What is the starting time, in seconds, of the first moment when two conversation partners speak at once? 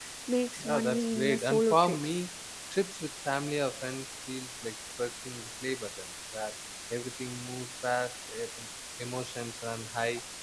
0.6 s

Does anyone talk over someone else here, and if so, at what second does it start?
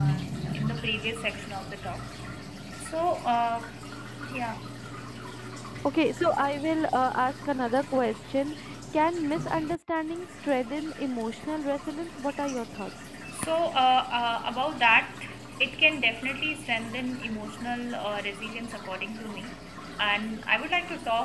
none

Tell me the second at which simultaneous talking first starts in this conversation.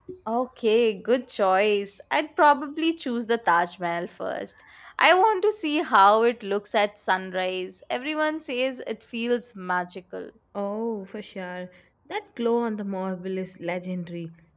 none

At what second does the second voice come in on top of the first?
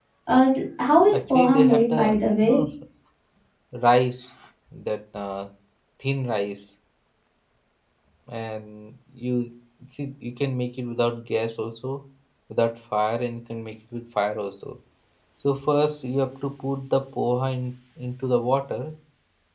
1.1 s

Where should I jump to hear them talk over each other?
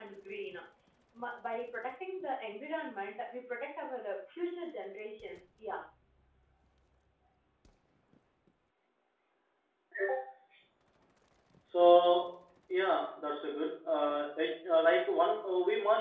none

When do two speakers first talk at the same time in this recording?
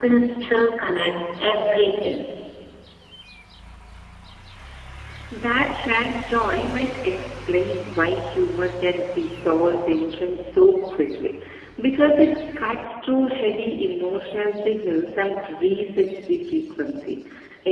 none

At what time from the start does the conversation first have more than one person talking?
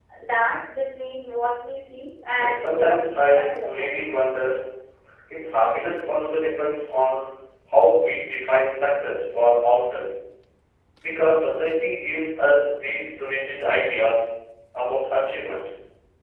2.3 s

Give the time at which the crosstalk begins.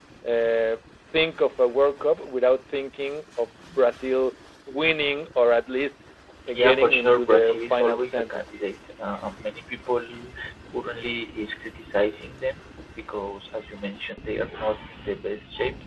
6.5 s

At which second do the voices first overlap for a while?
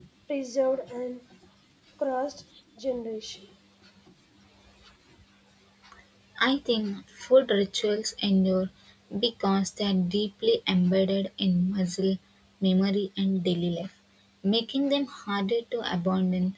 none

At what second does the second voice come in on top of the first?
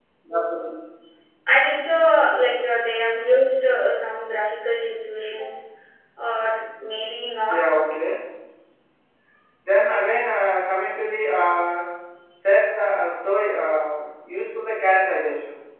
none

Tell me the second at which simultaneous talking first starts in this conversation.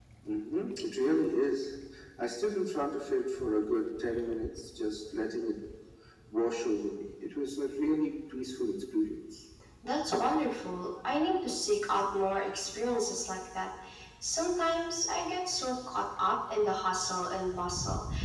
none

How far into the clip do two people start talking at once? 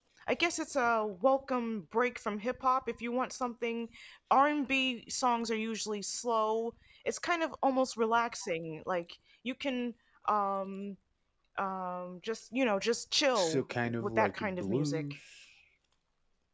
13.4 s

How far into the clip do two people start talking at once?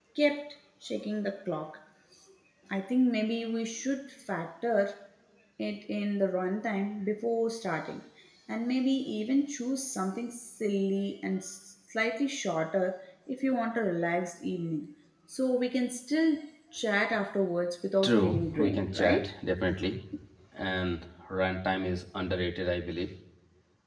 18.0 s

